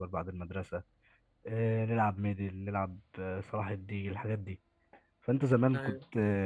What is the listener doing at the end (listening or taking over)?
listening